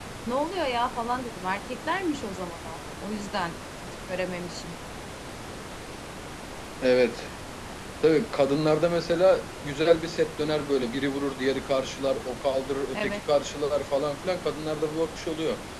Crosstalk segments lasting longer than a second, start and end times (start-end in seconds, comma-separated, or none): none